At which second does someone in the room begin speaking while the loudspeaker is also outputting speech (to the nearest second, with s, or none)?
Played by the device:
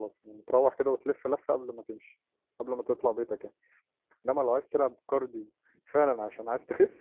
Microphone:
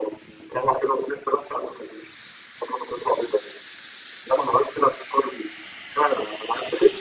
none